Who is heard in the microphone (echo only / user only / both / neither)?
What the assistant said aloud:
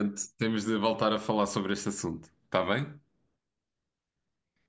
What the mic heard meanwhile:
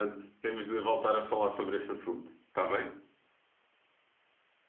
echo only